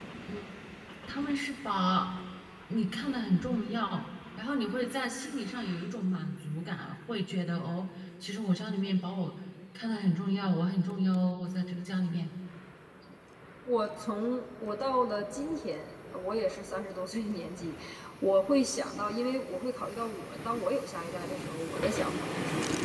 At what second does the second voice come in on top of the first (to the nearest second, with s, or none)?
none